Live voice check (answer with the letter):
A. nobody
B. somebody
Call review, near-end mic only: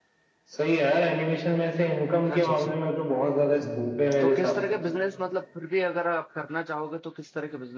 B